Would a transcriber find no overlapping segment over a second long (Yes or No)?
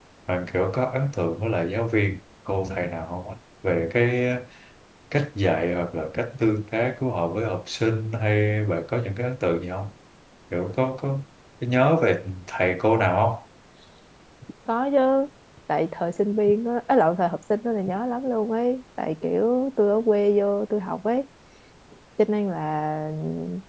Yes